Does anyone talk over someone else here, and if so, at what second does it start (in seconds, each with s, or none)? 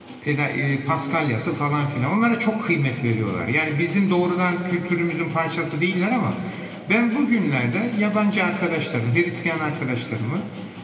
none